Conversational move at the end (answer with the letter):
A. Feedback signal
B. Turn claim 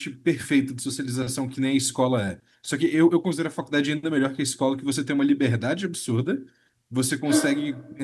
A